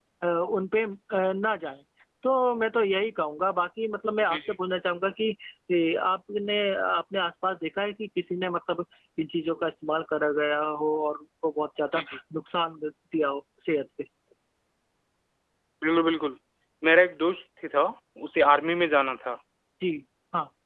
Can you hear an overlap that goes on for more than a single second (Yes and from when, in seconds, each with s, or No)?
No